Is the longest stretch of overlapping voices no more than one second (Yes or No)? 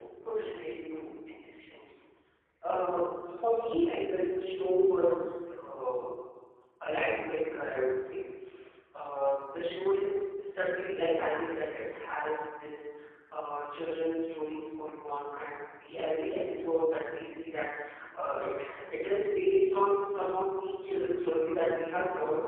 Yes